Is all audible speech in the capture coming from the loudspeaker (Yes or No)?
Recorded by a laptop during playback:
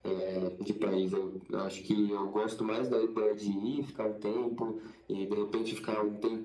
Yes